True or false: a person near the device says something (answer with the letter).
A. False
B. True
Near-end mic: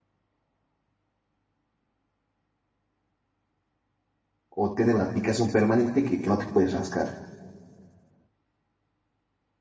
B